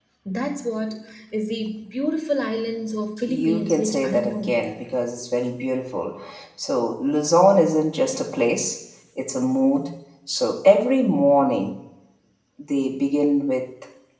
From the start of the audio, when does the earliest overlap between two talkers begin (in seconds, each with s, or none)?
3.3 s